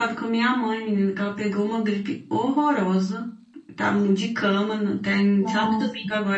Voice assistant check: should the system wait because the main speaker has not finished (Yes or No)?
Yes